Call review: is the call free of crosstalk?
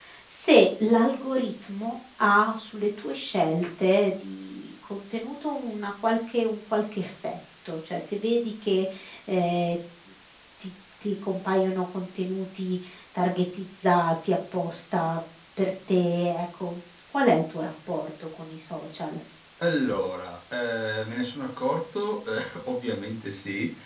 Yes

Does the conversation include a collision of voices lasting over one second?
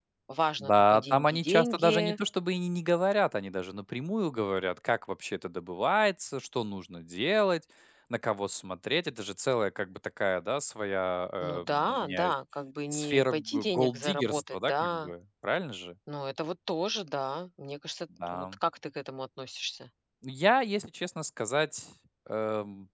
Yes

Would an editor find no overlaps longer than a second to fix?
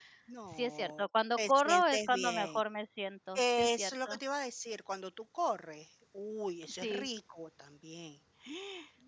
No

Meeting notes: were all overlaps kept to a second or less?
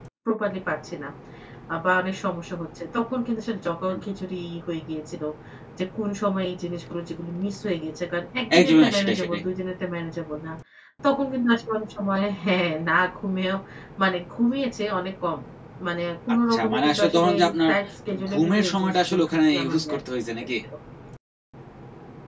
No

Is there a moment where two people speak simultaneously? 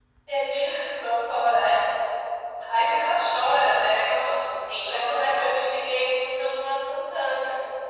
Yes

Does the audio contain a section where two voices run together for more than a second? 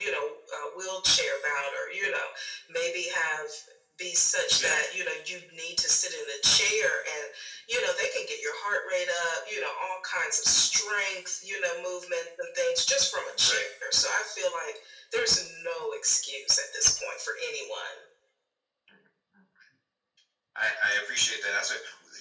No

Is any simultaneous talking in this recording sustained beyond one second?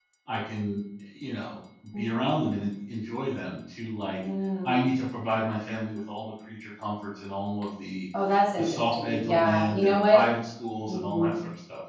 Yes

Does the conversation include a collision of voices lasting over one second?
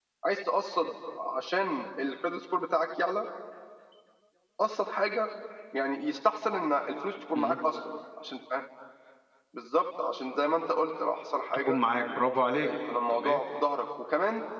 No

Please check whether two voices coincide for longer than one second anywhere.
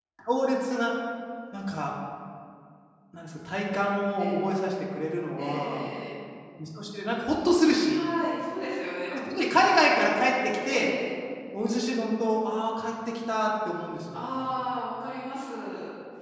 No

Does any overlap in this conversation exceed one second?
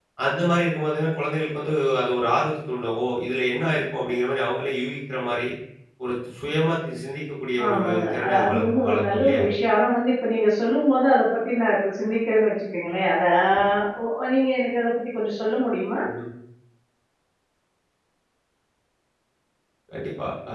Yes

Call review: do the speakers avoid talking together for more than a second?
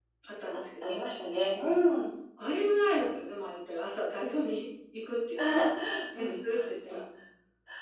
Yes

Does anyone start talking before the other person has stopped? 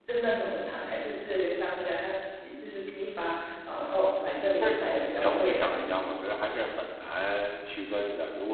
Yes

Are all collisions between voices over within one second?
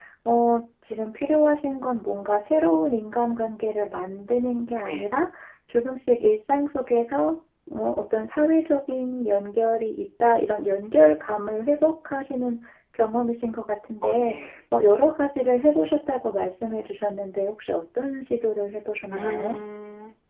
Yes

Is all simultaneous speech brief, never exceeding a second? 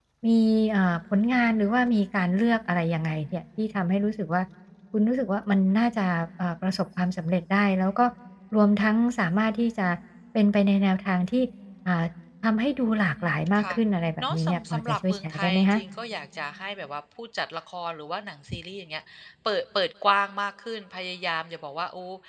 No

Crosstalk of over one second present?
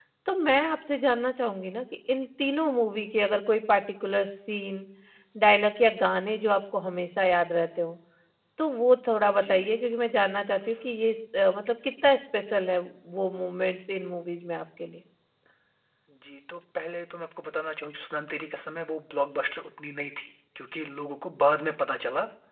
No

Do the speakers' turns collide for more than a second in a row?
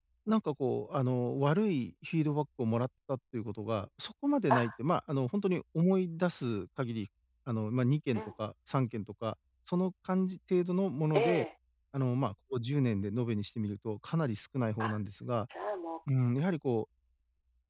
No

